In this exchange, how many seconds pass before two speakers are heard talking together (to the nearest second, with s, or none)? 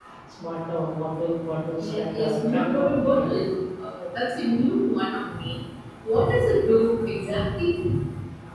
2 s